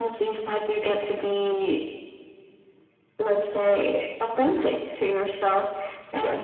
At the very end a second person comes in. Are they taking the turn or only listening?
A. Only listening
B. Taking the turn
A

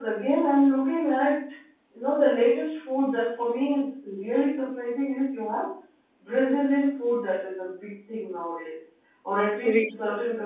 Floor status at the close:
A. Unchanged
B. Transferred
A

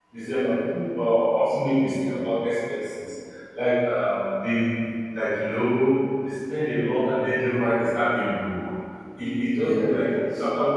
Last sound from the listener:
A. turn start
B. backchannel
B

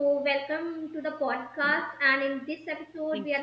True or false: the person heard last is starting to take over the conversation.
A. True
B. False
B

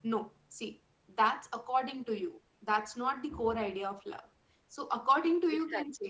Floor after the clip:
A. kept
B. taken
A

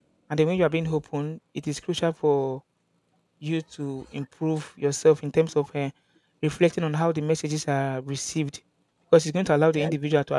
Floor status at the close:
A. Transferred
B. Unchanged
B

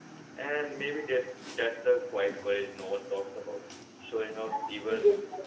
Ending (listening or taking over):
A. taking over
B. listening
A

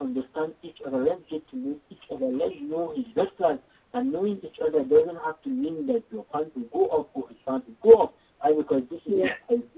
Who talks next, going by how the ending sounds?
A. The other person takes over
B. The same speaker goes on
B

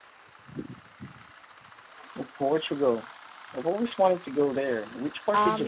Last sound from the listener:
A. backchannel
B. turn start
B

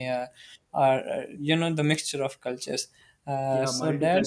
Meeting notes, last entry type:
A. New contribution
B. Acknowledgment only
A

